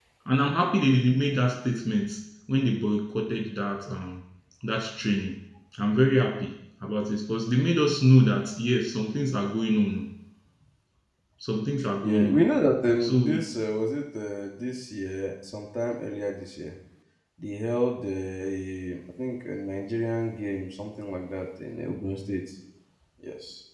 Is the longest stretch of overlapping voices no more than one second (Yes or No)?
Yes